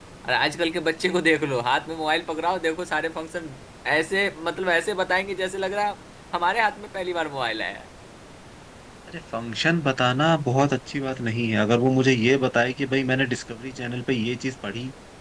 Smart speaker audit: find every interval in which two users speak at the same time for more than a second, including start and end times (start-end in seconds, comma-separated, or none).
none